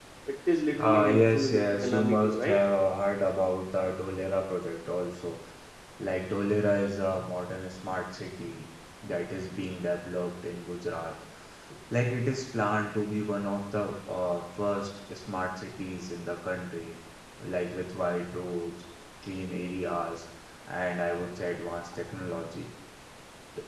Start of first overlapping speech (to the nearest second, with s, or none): 1 s